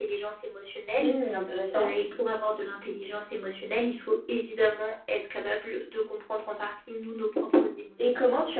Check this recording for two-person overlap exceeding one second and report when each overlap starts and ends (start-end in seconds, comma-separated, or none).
none